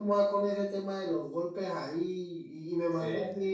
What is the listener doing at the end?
listening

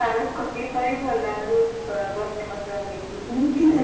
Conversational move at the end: taking over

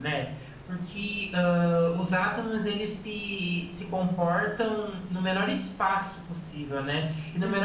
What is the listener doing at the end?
listening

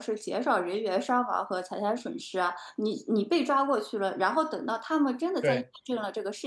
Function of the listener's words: listening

